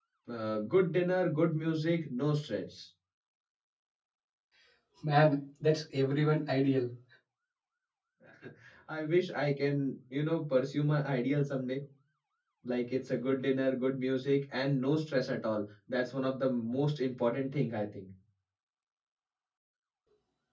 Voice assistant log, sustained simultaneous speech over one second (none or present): none